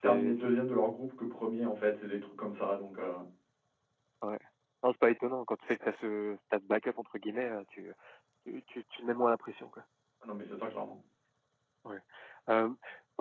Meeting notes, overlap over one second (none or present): none